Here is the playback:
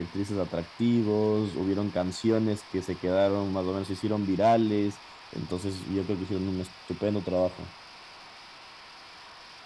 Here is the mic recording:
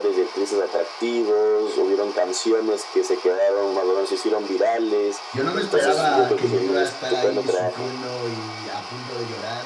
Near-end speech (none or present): present